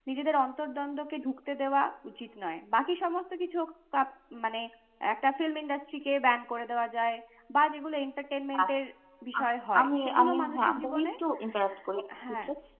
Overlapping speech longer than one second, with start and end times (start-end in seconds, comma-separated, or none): 9.8-11.1